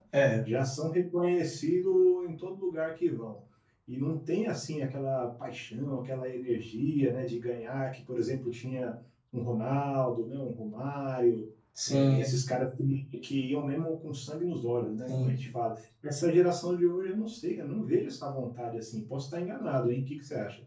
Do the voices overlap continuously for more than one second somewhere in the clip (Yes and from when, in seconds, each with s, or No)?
No